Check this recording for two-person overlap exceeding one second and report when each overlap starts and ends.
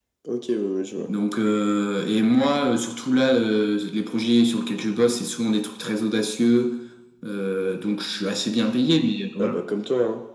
none

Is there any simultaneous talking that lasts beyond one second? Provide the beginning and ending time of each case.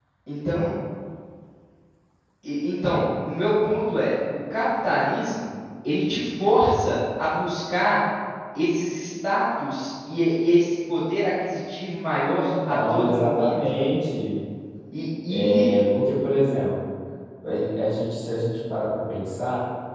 12.4-13.9

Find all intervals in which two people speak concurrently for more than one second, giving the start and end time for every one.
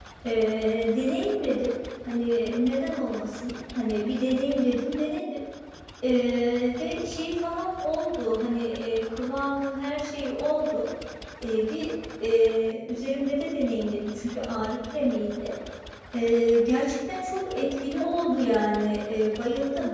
none

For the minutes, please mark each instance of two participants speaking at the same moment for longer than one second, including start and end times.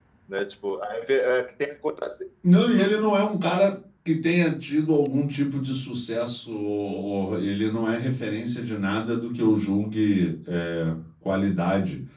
none

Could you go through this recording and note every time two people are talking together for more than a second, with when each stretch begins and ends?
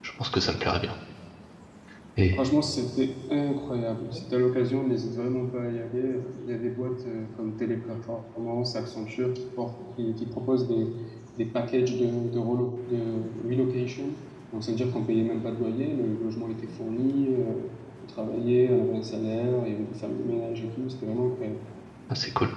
none

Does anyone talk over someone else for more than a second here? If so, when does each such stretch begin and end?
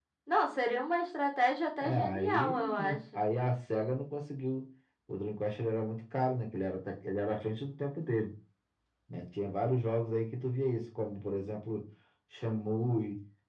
1.8-3.2

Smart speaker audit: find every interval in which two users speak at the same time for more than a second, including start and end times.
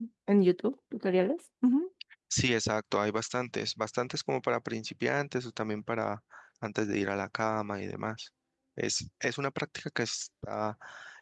none

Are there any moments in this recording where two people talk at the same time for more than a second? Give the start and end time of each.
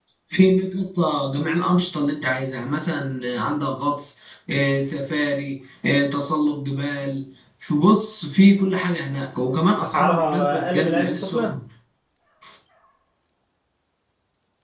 9.8-11.5

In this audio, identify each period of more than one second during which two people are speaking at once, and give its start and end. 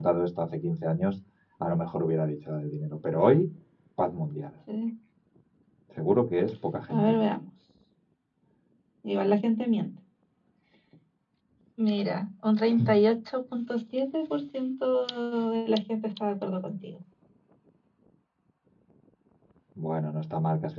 none

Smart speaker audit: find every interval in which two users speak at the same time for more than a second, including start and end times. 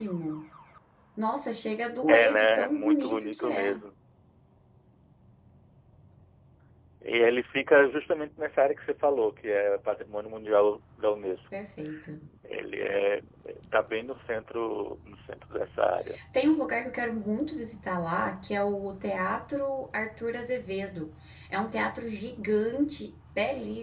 2.1-3.8

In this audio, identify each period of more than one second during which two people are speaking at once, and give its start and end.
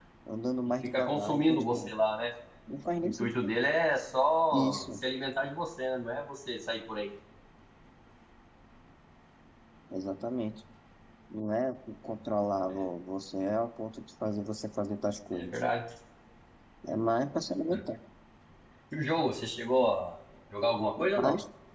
0.7-1.9

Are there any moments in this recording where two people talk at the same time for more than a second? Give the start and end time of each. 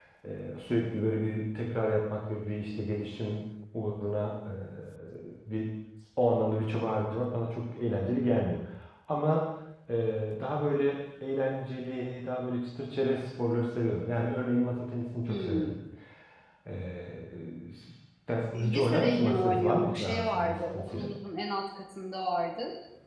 18.5-21.1

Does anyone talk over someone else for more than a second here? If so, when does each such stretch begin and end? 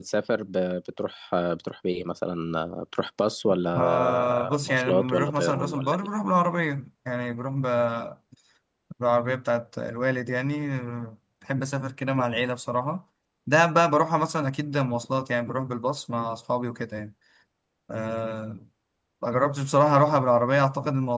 3.8-6.1

